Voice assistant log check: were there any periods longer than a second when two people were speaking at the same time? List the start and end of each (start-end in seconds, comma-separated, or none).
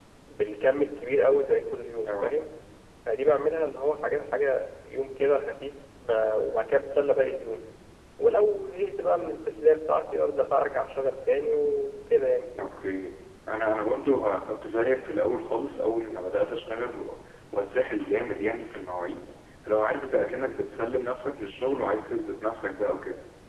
none